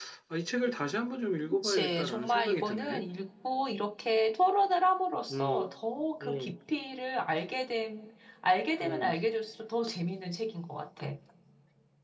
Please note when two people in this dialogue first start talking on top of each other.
1.5 s

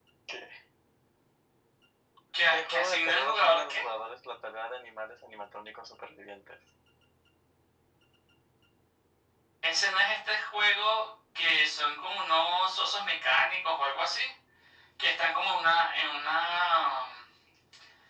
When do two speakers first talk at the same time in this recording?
2.5 s

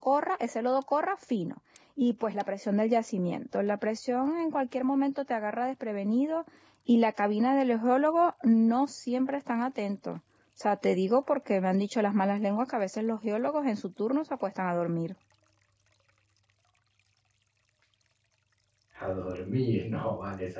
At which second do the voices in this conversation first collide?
none

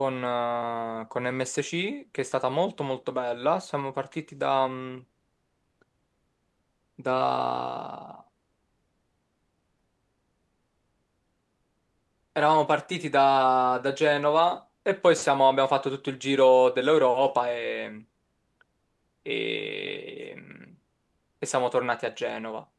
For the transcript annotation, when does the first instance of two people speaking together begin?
none

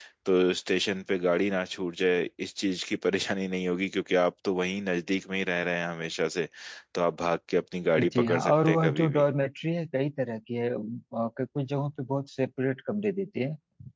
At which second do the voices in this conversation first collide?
8.0 s

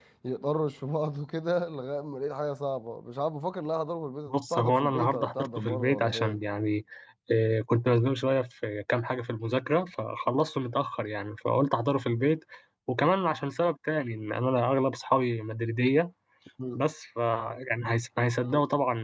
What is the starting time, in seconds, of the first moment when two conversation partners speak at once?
4.3 s

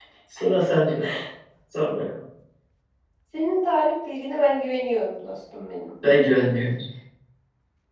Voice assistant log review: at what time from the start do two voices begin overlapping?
none

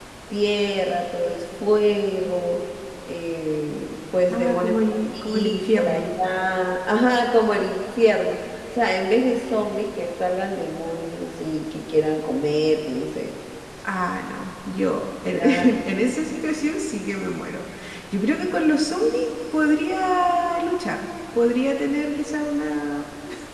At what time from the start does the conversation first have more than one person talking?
4.3 s

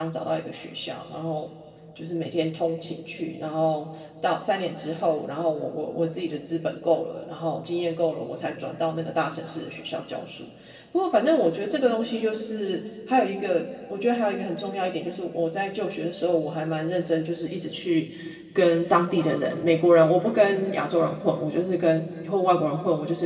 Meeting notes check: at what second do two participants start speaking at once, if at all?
none

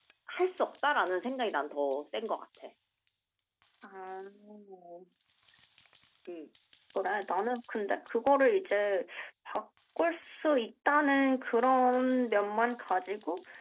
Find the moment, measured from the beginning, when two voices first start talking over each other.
none

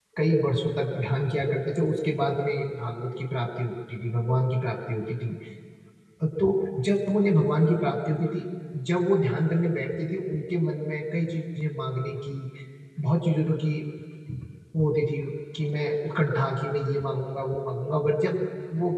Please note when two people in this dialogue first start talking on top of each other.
none

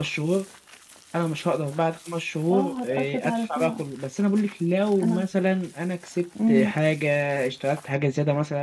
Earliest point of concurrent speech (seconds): 2.5 s

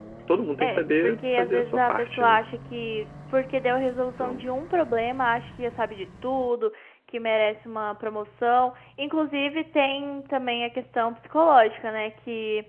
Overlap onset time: 0.6 s

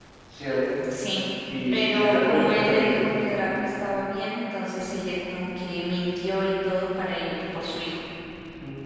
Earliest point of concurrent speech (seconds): 1.7 s

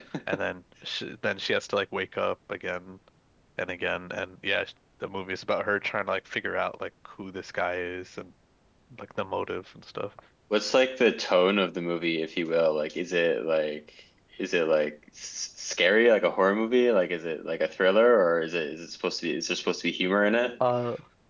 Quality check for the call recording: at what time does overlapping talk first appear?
none

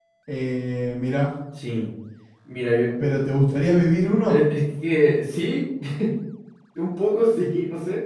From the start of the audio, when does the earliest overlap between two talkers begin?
none

